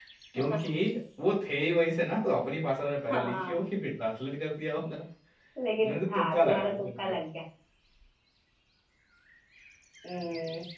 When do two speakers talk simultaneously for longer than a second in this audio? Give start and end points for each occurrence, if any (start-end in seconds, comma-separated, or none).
5.8-7.1